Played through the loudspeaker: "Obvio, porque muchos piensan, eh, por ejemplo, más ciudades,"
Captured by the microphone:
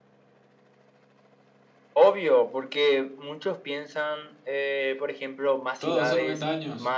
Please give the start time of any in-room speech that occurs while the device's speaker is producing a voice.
5.8 s

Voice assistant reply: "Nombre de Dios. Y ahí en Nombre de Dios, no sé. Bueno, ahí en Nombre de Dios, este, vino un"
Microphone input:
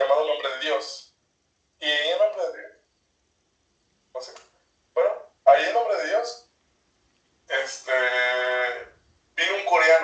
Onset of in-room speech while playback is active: none

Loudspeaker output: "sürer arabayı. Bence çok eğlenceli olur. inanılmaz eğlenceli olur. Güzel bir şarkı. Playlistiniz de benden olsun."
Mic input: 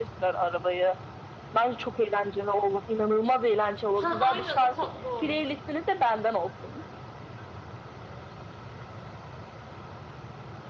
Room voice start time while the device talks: 3.9 s

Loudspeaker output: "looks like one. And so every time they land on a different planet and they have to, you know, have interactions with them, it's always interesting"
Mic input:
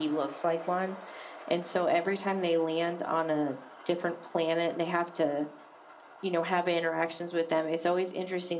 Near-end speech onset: none

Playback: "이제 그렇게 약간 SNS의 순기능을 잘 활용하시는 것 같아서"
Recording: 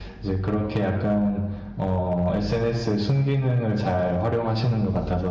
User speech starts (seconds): none

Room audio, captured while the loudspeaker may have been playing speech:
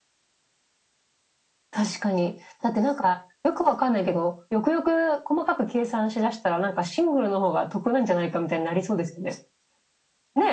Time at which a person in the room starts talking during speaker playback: none

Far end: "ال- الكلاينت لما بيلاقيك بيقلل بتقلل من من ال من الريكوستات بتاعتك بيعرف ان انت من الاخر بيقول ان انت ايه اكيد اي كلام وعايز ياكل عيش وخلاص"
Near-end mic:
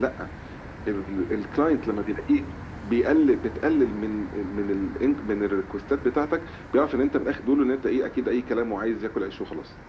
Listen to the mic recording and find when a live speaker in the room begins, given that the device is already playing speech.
none

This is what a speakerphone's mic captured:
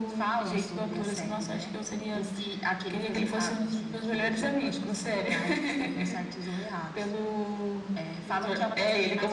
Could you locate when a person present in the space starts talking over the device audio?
none

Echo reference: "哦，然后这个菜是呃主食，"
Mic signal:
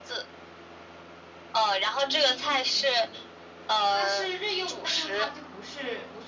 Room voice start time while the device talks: 1.9 s

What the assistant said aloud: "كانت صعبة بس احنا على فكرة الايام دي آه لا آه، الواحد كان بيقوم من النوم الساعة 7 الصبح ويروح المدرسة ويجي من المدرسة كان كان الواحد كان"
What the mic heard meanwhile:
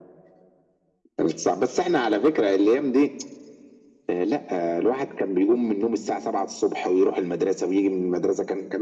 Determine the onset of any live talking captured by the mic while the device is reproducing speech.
none

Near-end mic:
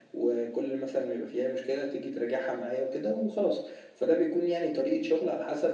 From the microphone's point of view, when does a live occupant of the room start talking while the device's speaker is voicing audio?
none

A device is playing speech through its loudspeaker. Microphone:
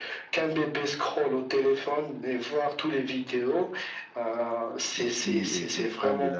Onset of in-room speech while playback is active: 4.9 s

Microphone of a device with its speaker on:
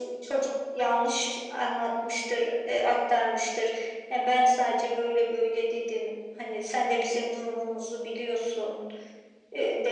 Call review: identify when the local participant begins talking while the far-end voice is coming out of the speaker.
none

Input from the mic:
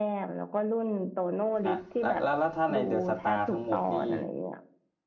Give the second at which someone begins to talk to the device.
1.6 s

